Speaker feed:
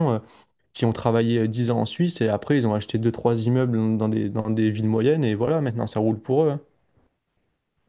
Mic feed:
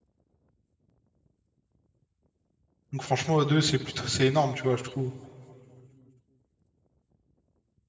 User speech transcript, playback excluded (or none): Donc franchement, à deux, c'est plutôt, c'est énorme, tu vois, je trouve.